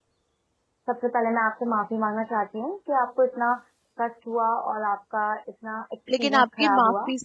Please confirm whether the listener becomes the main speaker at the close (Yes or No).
Yes